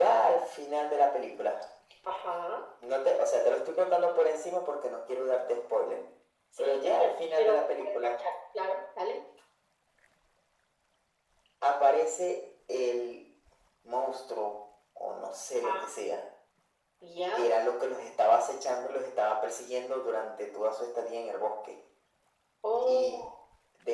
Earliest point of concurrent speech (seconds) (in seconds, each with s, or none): 6.6 s